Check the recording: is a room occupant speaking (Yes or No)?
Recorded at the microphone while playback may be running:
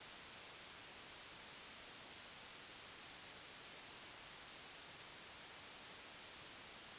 No